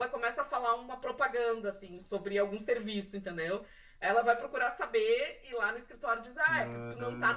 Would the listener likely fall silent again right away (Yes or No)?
Yes